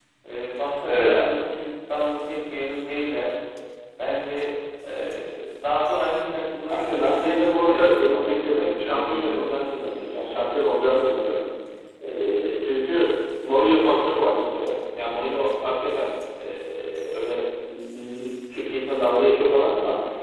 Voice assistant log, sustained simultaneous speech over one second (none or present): present